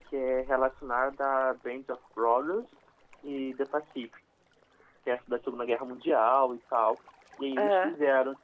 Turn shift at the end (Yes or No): No